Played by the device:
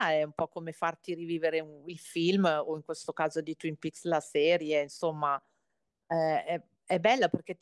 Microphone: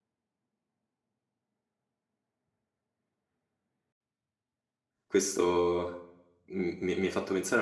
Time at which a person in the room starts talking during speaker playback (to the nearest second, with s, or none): 5 s